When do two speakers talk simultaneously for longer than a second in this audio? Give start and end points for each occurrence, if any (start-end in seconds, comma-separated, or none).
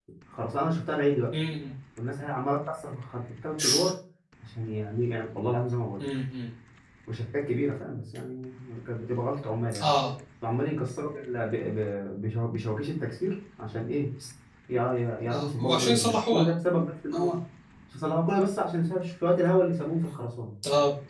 15.3-16.5